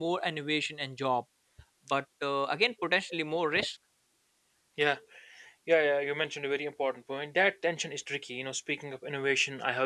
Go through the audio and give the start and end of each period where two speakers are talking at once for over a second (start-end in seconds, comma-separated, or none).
none